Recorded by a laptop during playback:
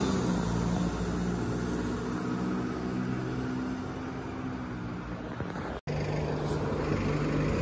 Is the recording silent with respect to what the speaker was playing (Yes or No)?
Yes